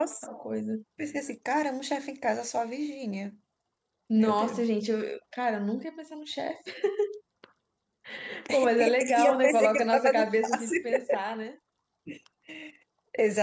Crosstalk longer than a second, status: present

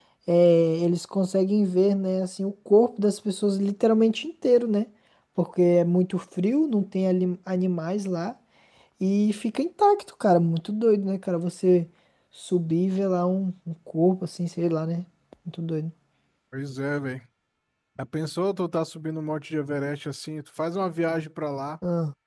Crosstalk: none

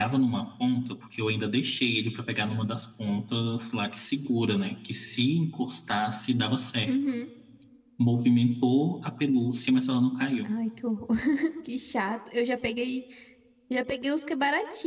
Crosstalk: none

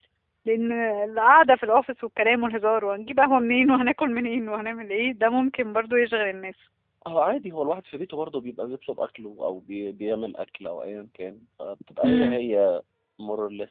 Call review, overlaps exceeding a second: none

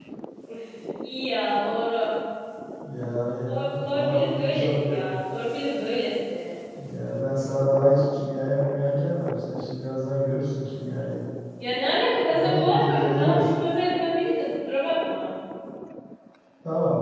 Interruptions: present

